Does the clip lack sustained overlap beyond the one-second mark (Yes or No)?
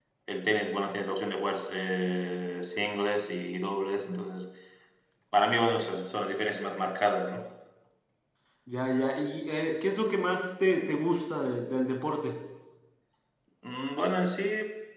Yes